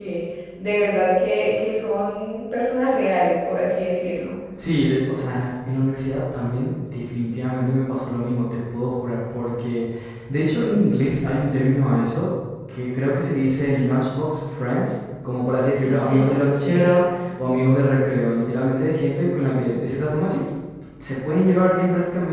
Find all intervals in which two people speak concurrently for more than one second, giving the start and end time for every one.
15.8-17.0

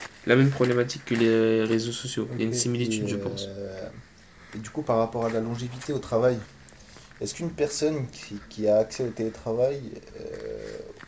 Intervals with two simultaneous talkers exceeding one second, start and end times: 2.3-3.5

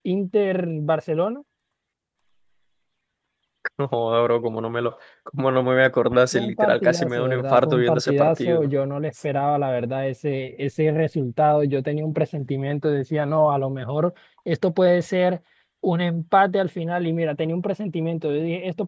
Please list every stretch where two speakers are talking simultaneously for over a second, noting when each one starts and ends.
6.3-8.7

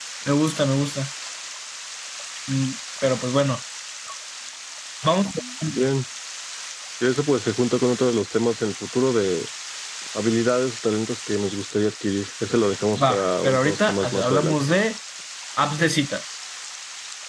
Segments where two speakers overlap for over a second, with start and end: 13.1-14.6

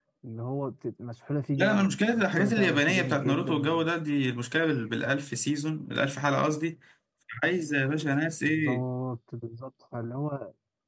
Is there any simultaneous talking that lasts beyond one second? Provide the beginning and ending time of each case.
1.5-3.7

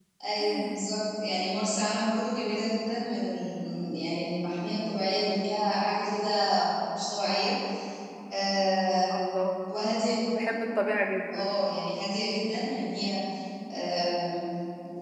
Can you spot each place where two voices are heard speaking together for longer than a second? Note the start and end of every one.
none

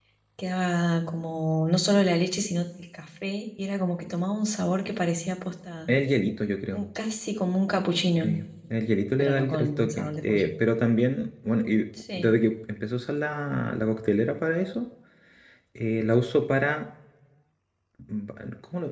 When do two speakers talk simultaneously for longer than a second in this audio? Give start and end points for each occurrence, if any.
9.2-10.5

